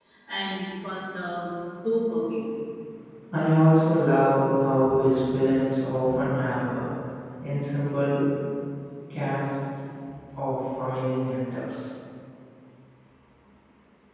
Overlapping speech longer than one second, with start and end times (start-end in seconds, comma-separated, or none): none